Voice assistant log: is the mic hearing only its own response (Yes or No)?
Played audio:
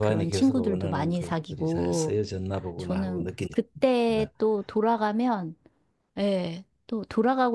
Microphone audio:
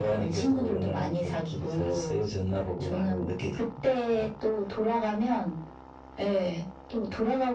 Yes